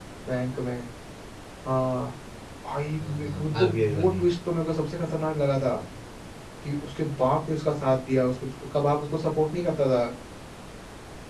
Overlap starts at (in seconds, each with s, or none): 2.9 s